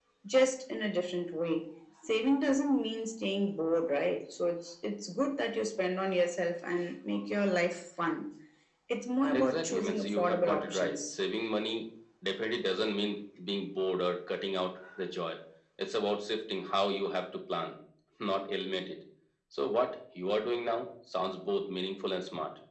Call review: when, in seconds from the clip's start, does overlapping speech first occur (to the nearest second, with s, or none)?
9 s